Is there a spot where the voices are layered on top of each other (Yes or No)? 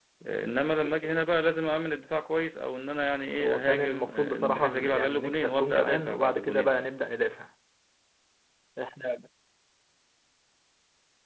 Yes